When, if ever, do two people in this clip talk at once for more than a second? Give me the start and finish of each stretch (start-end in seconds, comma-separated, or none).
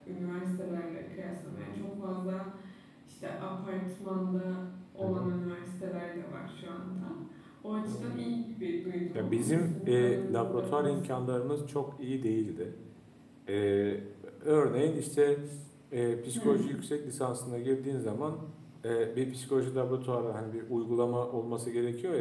9.1-11.2